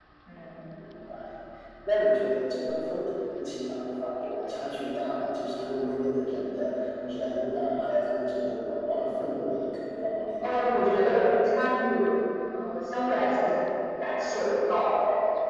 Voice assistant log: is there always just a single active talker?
Yes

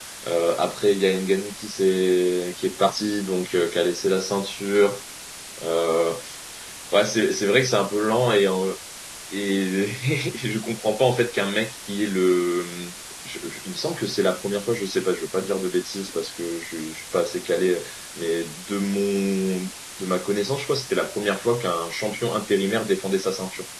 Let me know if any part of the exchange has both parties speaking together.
No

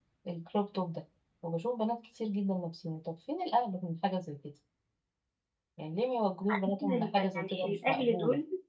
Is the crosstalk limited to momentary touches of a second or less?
No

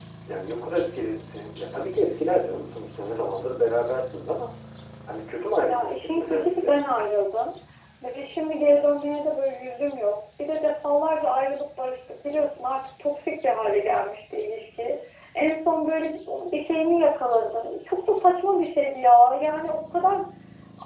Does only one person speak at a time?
No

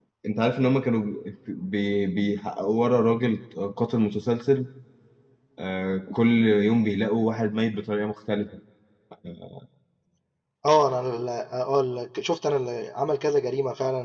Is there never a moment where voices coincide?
Yes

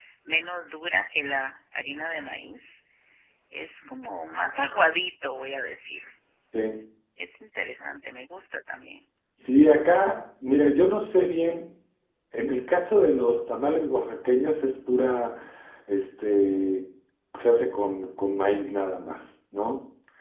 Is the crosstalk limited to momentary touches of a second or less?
Yes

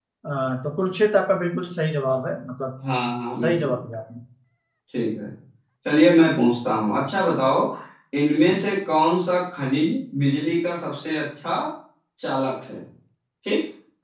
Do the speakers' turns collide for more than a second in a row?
No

